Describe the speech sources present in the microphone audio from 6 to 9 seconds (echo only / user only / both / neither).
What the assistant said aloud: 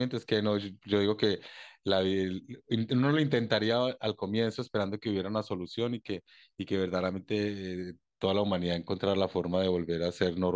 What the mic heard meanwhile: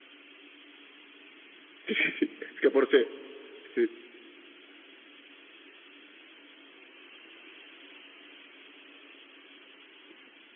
neither